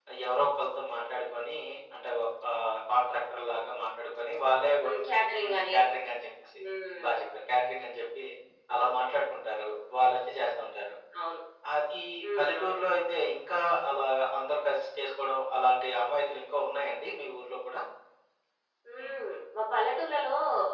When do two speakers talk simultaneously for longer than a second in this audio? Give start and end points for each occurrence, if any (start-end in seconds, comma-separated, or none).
none